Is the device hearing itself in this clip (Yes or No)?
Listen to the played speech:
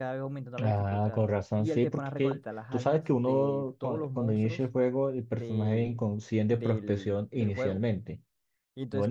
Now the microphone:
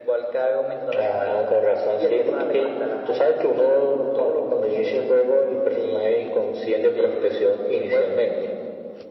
Yes